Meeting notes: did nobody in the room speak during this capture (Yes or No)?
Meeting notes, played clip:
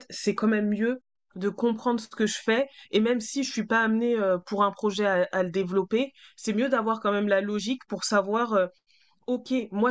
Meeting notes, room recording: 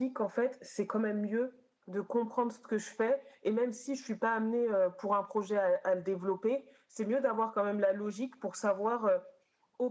Yes